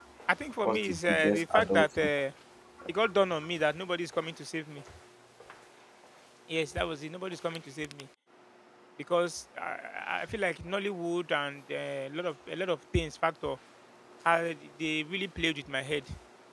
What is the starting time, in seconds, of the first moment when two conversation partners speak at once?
0.6 s

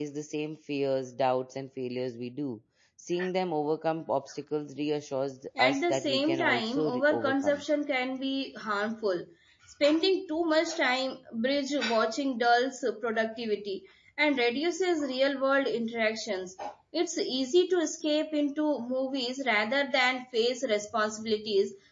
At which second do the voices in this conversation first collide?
5.6 s

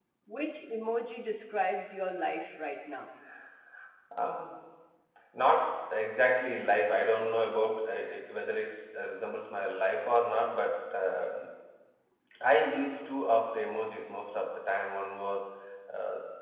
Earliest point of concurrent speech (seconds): none

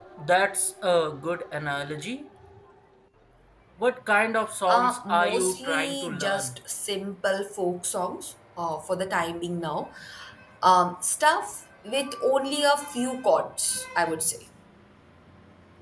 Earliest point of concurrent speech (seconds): 4.7 s

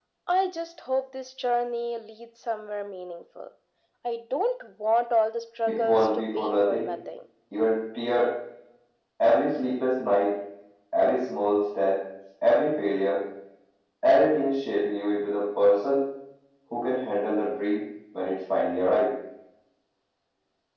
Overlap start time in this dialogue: 5.7 s

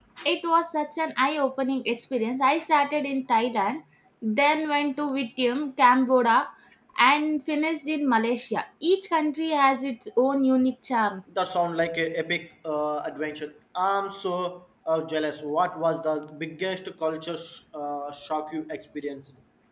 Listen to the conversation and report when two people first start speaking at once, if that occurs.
none

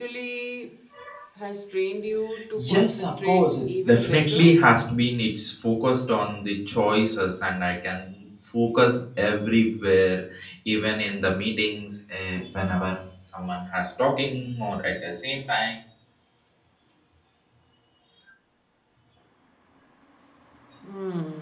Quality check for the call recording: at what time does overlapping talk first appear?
2.6 s

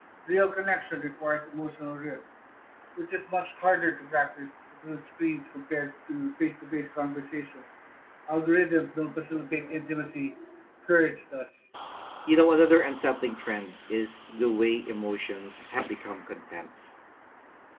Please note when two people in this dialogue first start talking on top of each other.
none

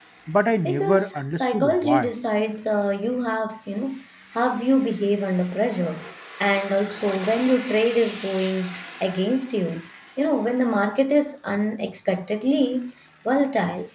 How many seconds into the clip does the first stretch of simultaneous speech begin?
0.7 s

